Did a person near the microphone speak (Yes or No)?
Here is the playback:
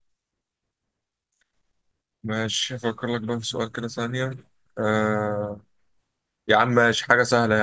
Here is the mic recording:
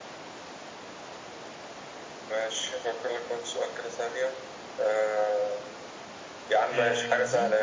Yes